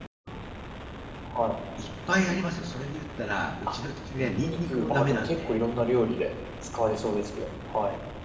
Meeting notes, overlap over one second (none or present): present